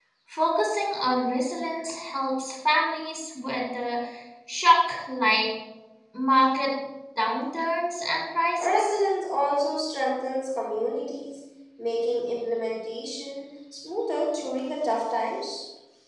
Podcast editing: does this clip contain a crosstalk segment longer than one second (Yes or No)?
No